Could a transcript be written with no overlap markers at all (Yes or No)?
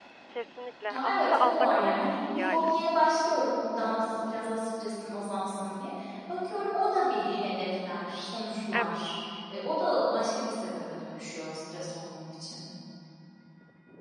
No